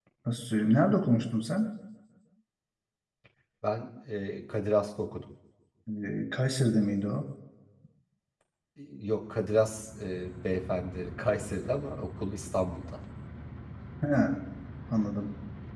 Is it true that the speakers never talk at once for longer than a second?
Yes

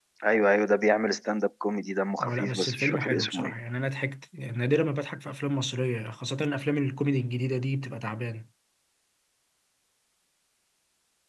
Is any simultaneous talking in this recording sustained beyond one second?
Yes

